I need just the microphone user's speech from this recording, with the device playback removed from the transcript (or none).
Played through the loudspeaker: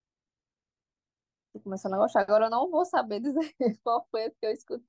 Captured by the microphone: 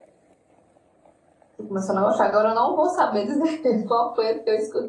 none